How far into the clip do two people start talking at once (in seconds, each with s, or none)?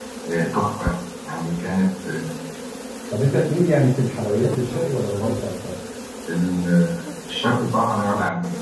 none